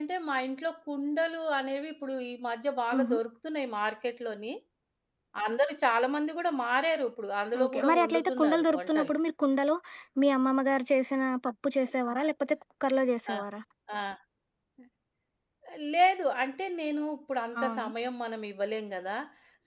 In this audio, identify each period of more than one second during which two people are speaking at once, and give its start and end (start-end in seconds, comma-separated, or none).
7.6-9.1